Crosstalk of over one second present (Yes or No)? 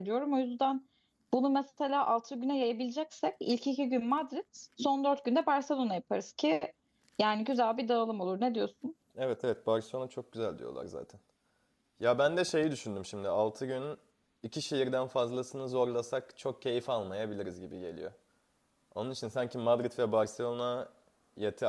No